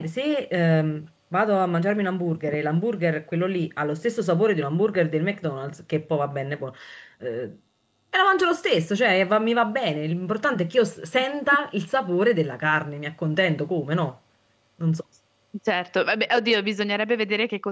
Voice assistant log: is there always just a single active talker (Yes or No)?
Yes